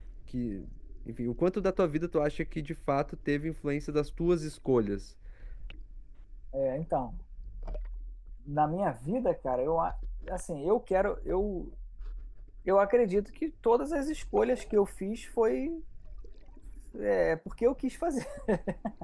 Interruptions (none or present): none